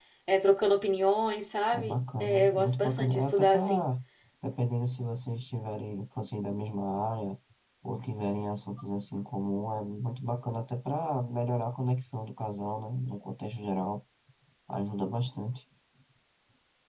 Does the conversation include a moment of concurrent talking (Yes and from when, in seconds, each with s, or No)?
Yes, from 1.7 s